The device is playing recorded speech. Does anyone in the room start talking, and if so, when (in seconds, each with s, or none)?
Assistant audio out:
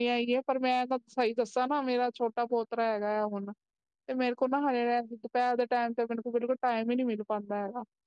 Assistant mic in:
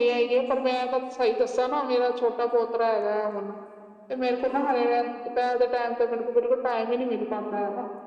none